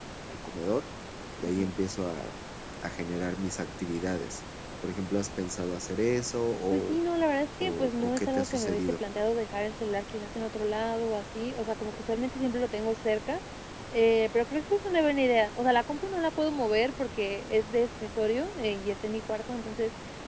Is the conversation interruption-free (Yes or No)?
No